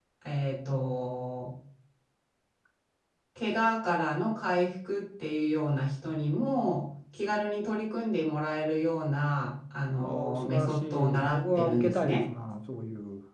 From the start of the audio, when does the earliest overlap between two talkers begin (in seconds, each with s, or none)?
10.0 s